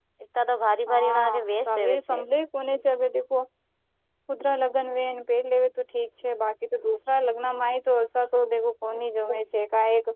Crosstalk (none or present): present